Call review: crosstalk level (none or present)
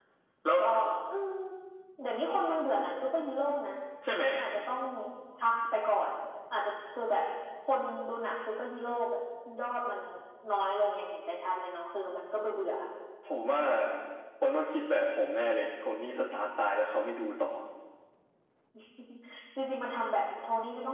none